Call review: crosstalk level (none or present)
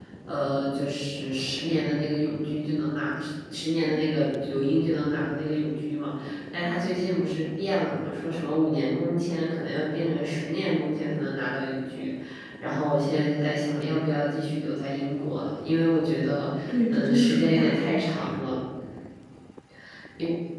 present